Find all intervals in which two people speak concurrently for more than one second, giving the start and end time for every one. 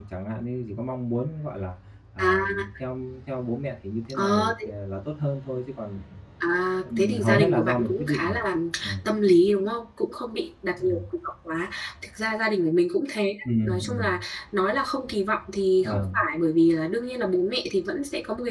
6.8-8.4

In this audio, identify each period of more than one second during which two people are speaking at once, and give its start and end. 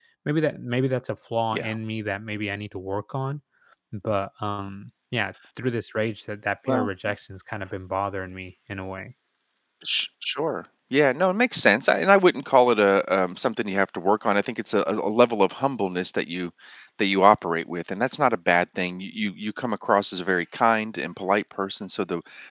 none

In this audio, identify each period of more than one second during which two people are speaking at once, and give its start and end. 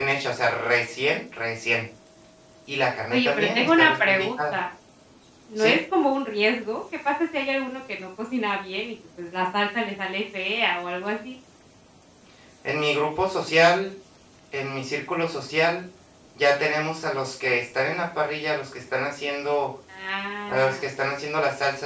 3.1-4.5

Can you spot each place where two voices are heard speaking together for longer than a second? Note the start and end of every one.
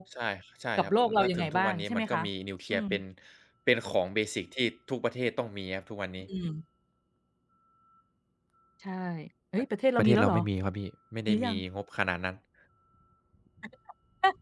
0.8-2.2

